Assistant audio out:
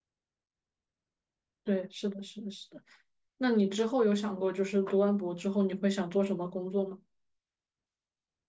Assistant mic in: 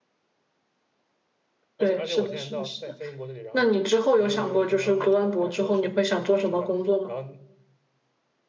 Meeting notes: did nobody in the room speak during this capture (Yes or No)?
No